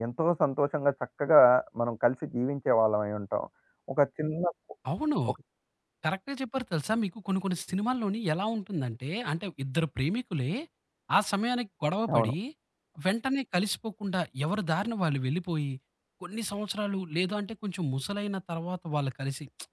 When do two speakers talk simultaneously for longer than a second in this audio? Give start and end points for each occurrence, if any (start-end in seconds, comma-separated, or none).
none